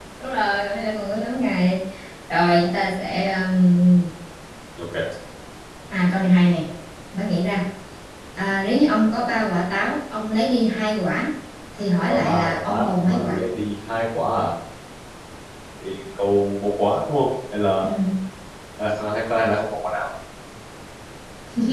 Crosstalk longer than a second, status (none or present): present